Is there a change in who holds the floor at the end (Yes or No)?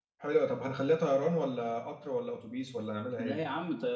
Yes